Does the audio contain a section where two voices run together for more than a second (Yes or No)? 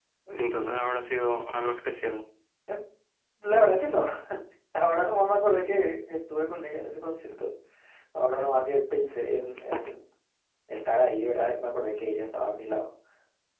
No